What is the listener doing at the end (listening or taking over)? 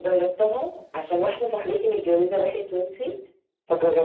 listening